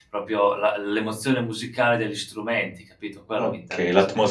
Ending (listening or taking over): taking over